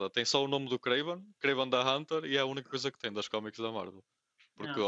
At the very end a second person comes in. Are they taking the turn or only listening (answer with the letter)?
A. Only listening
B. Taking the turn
A